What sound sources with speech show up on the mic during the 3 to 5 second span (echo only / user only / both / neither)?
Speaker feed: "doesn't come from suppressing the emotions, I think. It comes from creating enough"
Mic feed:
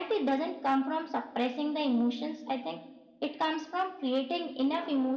echo only